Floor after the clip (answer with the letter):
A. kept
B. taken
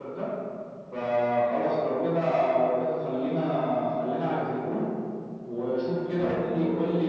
A